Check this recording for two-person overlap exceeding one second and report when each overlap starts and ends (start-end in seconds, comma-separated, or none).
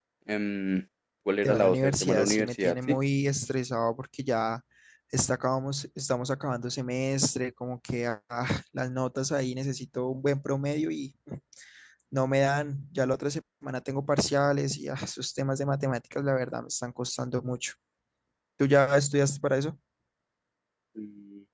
1.4-3.0